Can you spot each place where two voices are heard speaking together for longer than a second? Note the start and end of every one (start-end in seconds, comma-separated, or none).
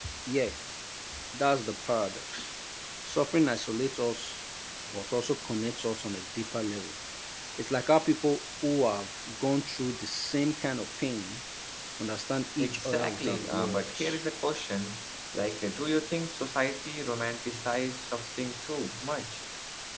12.6-14.2